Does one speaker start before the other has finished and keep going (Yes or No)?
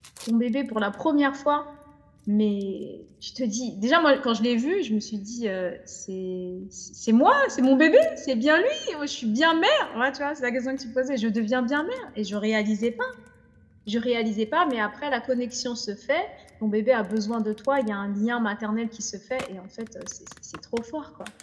No